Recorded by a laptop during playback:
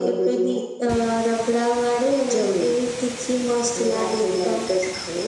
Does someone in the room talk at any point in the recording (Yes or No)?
No